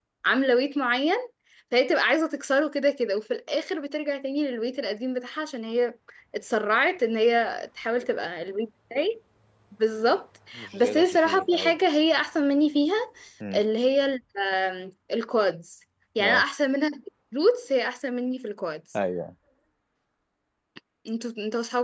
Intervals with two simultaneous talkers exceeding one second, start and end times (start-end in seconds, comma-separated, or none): 10.5-11.8